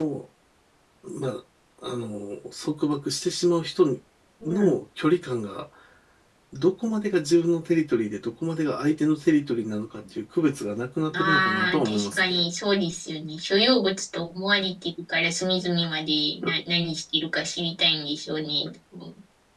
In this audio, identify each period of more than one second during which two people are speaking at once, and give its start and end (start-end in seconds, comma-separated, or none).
11.1-12.4